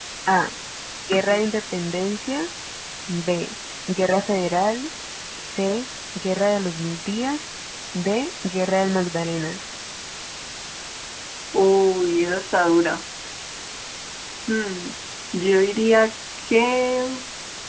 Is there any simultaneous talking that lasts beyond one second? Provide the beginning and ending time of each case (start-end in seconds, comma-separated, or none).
none